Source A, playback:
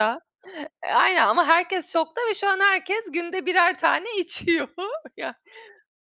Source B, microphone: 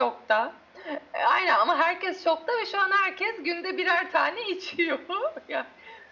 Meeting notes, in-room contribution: none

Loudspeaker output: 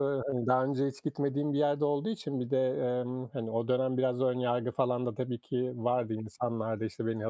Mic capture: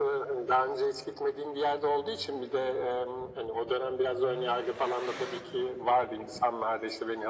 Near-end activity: none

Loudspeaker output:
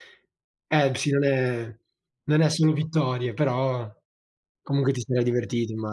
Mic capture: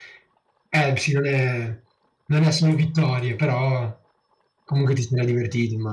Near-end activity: none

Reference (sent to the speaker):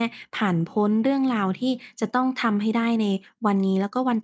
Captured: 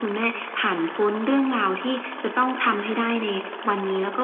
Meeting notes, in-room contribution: none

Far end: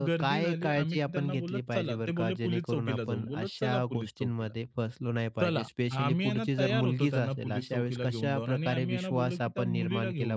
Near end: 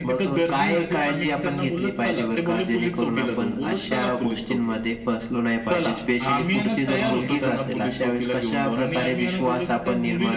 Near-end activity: none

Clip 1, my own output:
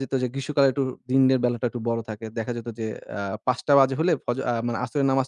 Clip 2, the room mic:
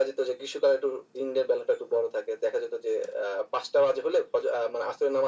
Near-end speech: none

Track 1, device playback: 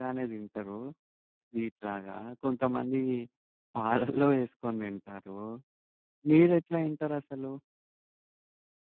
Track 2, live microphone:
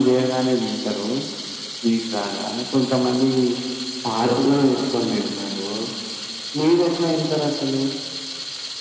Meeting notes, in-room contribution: none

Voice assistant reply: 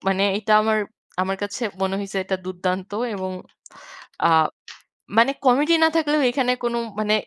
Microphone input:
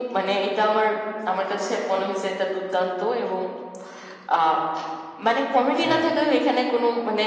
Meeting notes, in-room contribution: present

